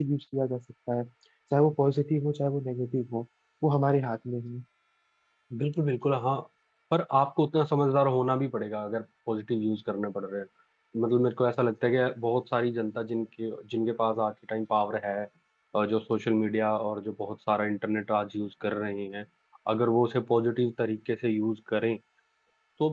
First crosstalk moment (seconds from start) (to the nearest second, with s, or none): none